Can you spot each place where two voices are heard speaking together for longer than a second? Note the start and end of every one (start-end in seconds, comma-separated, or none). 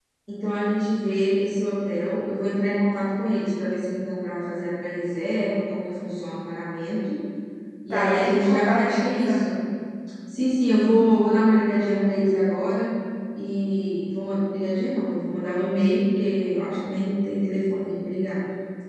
7.9-9.4